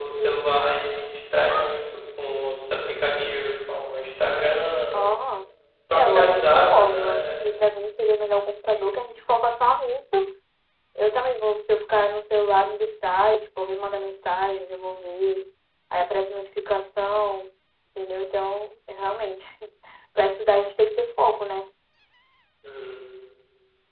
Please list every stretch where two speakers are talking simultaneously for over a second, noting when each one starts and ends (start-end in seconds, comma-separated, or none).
5.9-7.3